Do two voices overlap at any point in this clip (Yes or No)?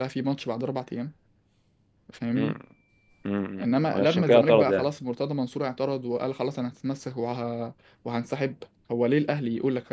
Yes